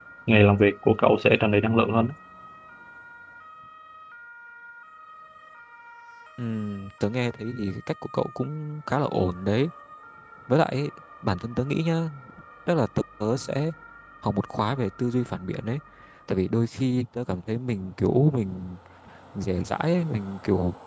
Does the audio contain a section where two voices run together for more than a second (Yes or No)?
No